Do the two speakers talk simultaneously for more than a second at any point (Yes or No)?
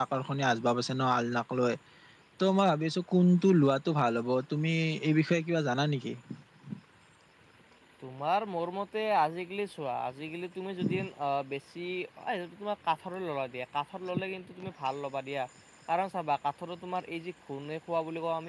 No